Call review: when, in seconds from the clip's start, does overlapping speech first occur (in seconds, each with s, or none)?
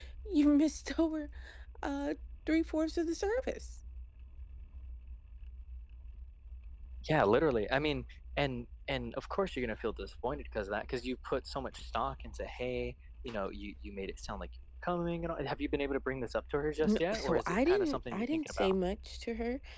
16.8 s